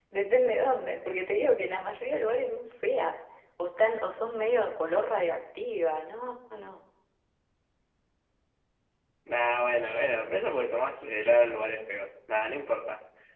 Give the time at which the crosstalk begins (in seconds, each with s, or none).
none